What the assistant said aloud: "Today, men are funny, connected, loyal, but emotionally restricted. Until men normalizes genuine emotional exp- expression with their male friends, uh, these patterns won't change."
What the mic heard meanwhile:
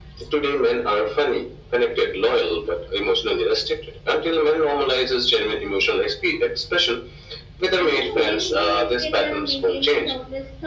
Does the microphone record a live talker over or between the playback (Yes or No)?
Yes